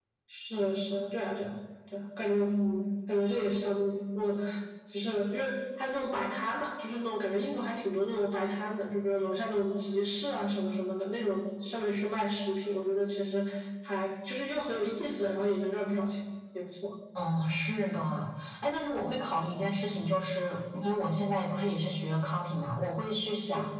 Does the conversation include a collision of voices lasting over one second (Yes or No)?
No